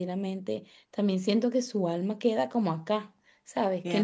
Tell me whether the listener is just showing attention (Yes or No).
No